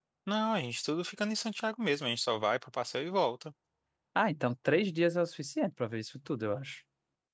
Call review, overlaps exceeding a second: none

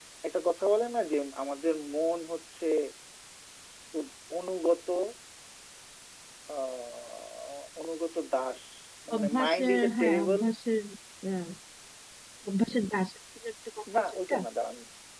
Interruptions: present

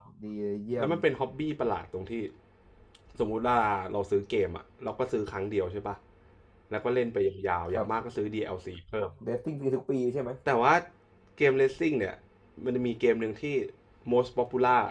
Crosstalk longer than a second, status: none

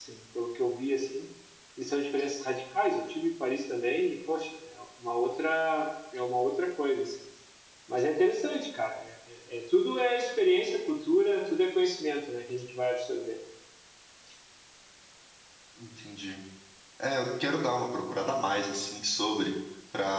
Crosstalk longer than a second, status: none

